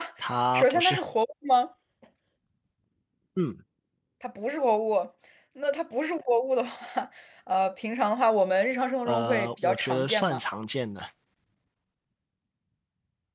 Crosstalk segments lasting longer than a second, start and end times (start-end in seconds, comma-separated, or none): 9.0-10.4